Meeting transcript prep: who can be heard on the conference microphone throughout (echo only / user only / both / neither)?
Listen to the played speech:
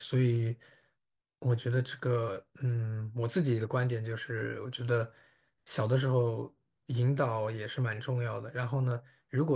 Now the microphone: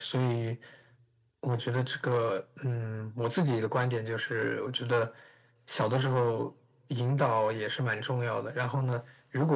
echo only